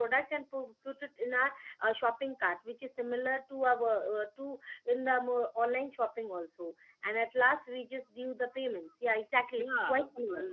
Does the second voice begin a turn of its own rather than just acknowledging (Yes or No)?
Yes